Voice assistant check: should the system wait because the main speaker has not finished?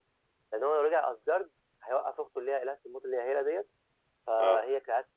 Yes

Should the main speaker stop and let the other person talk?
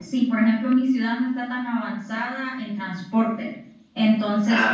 No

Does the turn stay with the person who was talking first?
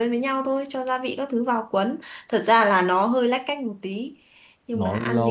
No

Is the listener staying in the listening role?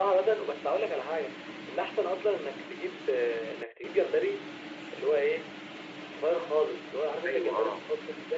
No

